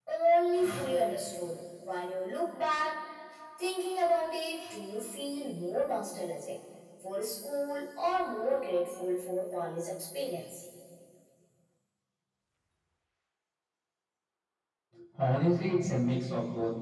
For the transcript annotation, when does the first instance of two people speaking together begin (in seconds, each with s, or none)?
none